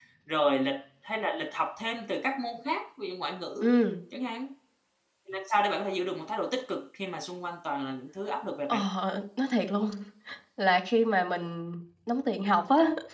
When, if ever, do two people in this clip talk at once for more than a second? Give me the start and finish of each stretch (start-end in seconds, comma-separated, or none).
none